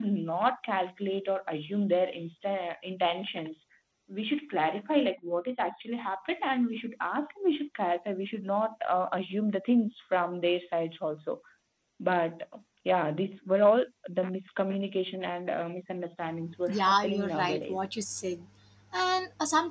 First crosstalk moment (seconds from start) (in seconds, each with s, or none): 16.7 s